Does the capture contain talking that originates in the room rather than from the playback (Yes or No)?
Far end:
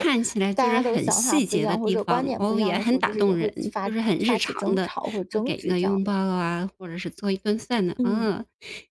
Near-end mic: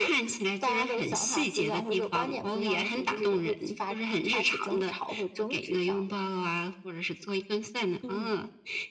No